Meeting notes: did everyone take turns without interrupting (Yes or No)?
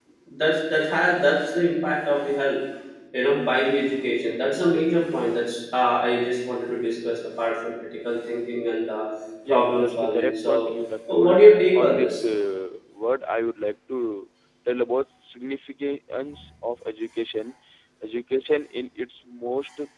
No